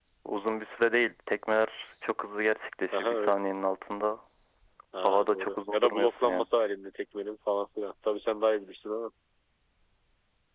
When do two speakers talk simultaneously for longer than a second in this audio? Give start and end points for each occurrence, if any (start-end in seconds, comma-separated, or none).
5.0-6.5